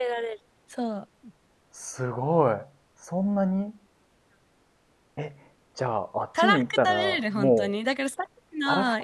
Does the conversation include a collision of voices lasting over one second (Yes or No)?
Yes